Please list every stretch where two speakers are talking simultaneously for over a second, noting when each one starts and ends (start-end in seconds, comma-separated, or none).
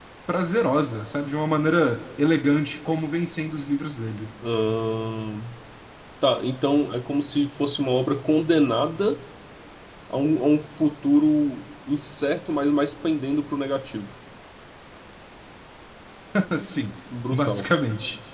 none